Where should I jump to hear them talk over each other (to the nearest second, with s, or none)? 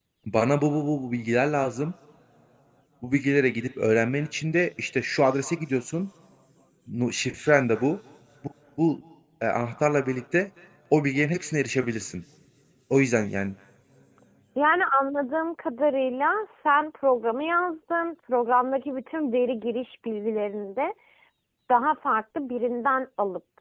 none